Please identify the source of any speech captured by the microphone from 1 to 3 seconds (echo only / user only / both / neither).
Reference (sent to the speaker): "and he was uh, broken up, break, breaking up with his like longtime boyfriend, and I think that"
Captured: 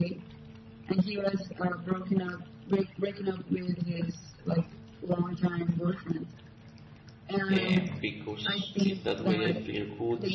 echo only